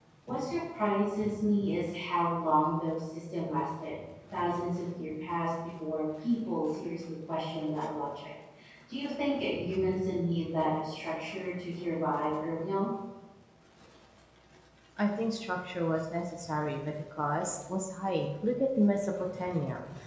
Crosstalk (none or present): none